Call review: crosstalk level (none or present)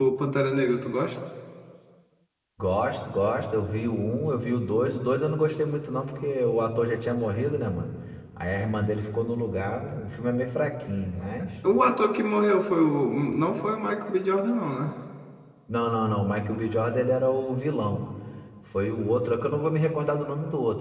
none